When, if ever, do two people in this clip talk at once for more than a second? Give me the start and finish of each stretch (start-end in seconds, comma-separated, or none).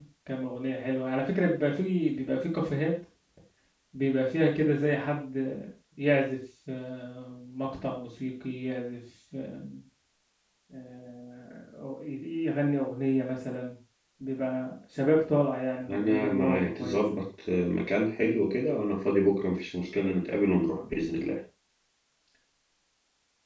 15.9-17.2